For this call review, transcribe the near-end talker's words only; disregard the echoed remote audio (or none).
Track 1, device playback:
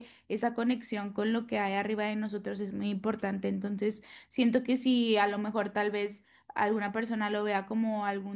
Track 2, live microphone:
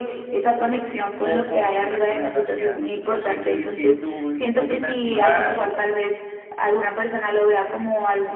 o con trastornos de ansiedad. No sé que si tú opinas igual